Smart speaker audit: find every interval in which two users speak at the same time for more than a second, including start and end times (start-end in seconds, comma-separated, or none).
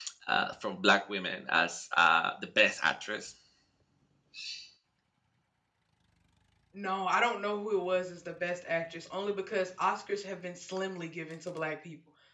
none